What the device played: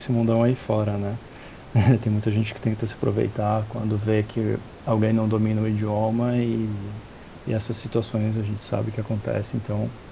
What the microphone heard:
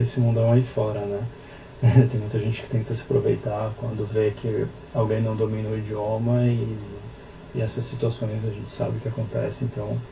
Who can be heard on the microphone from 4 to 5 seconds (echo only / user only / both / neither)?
echo only